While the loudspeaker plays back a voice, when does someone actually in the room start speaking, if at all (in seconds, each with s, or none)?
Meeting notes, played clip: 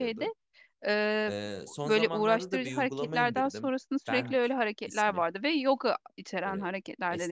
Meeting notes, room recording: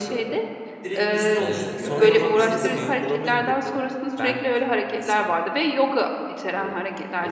0.8 s